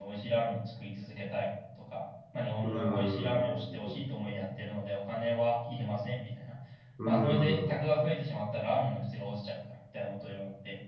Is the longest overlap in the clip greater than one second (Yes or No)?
Yes